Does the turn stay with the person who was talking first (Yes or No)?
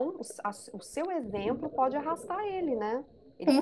No